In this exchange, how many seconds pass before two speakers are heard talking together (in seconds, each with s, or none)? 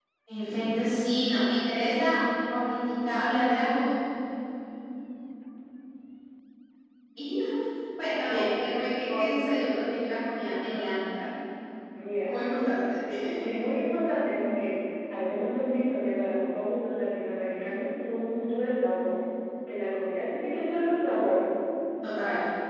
8.3 s